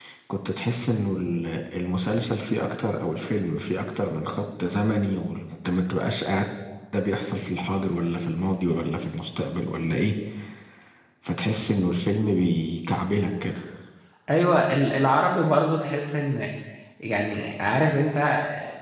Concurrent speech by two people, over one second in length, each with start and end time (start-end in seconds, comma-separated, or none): none